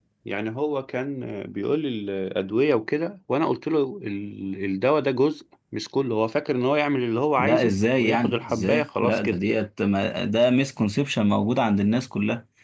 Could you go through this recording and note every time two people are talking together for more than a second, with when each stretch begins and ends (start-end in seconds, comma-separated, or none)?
7.4-9.4